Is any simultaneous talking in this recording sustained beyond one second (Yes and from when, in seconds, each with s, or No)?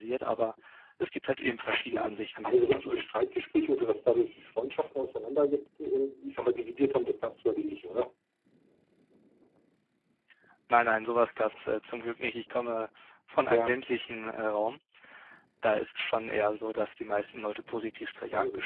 Yes, from 1.7 s